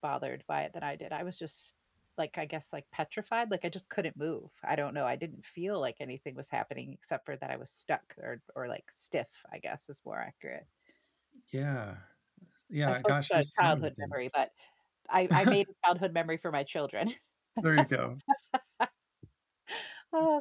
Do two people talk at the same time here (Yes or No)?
Yes